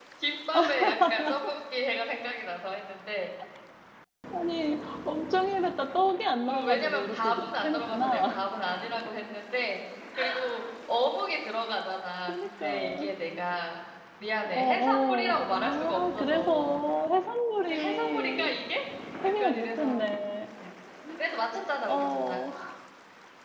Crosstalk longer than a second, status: present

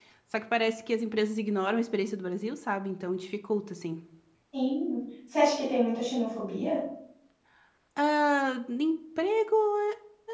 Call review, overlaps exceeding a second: none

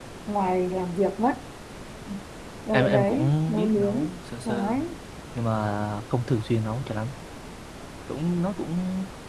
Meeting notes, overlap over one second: present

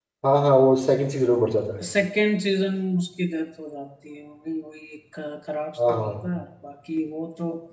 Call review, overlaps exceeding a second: none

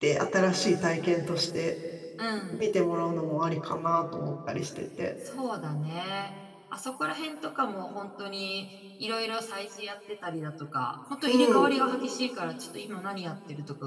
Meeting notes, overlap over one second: none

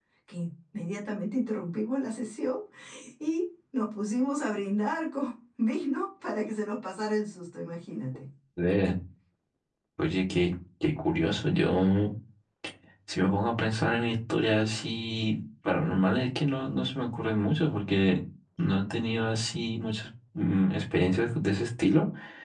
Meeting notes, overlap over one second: none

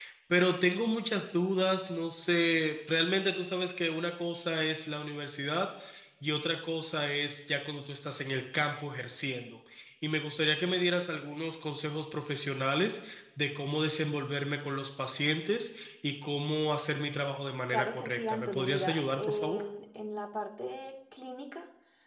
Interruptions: present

